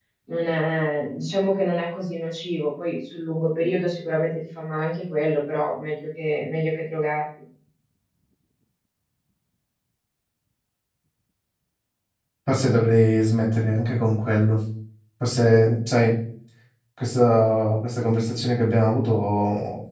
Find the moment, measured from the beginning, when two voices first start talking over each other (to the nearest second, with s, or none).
none